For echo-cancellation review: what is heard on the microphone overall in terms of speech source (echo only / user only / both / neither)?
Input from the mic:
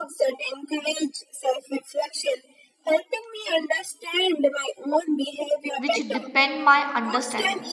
both